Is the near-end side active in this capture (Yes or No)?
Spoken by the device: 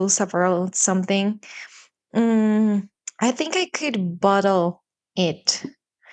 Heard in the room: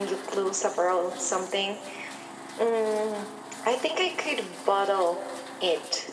No